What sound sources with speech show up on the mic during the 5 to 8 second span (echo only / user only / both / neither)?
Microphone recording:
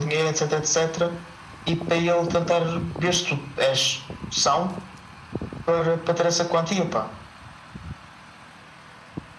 echo only